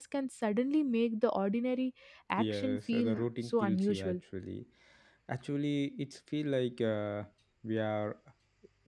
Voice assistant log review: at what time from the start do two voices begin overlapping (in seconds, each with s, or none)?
2.4 s